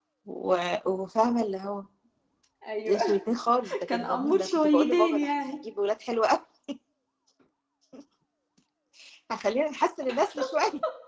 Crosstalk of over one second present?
Yes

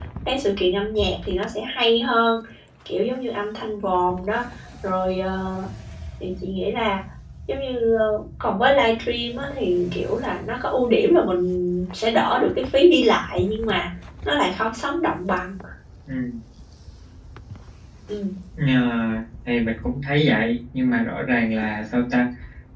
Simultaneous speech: No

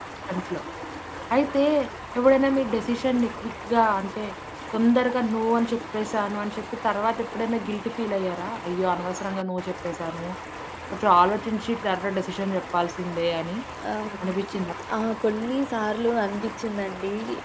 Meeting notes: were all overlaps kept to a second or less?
Yes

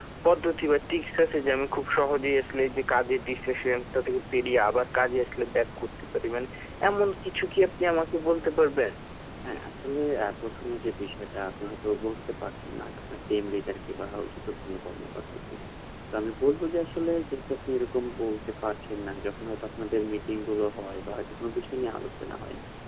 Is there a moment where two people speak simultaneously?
No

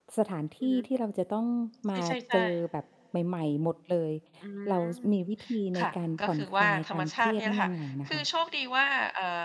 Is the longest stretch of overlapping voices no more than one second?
No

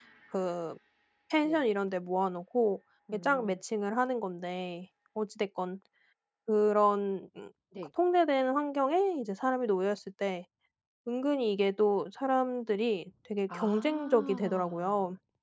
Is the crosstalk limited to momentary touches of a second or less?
No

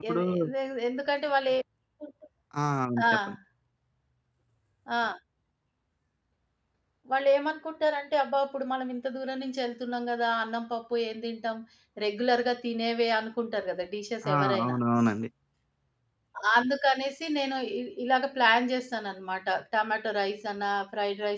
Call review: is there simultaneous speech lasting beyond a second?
No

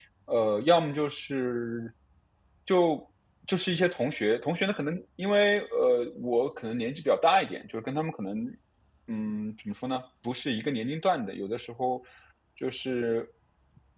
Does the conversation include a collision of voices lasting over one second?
No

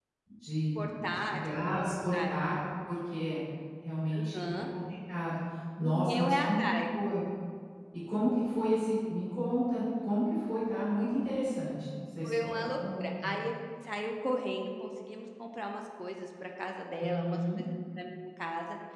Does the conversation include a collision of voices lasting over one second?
Yes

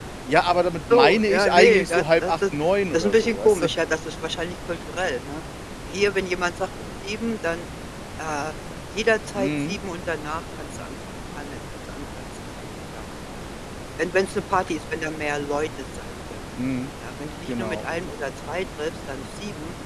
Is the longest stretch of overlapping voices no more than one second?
No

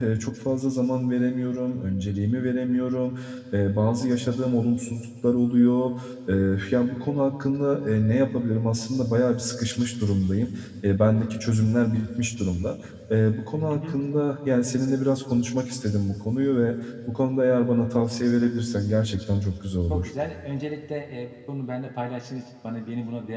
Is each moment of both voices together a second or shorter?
Yes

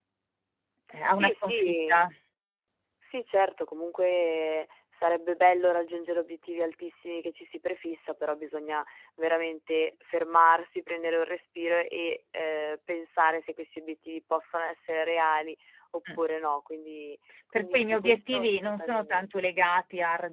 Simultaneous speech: Yes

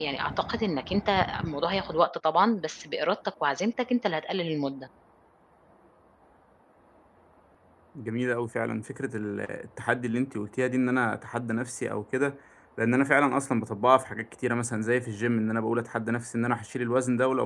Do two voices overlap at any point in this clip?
No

